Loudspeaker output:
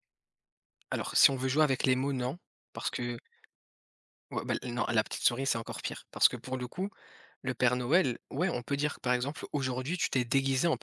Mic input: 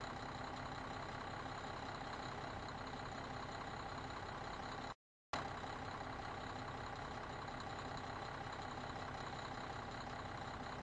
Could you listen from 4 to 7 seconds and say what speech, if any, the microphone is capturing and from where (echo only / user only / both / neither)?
neither